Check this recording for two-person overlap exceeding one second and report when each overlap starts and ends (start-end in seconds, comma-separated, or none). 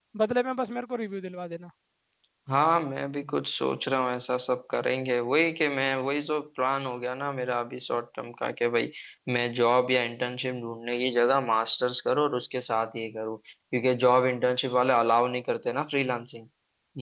none